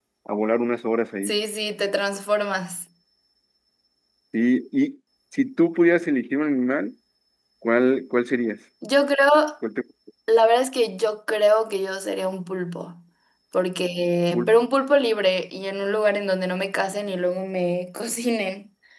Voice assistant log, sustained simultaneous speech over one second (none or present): none